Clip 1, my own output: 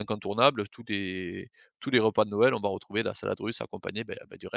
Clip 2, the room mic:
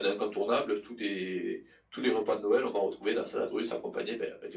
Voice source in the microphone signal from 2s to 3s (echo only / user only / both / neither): echo only